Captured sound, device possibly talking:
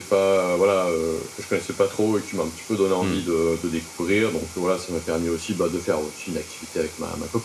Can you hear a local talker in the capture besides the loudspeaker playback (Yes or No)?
Yes